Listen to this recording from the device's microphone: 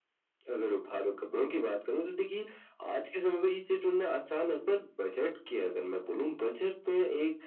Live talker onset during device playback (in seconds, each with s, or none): none